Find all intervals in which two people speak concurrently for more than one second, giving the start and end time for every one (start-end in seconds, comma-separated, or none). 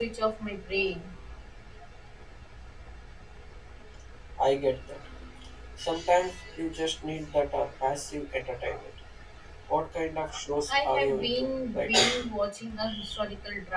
10.7-12.2